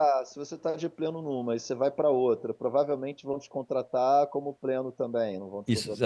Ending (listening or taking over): taking over